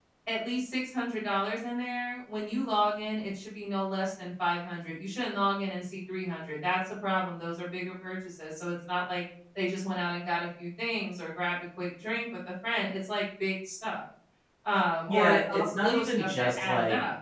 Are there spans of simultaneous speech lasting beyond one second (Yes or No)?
Yes